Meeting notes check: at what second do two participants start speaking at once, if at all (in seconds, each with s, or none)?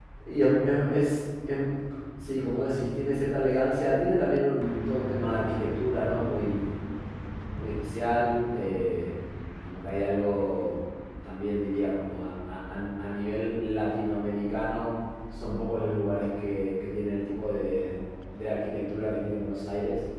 none